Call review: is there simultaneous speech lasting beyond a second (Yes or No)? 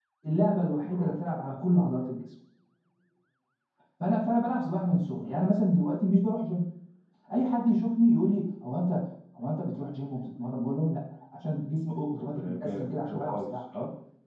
Yes